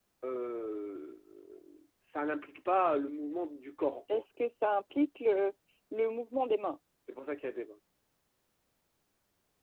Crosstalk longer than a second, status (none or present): none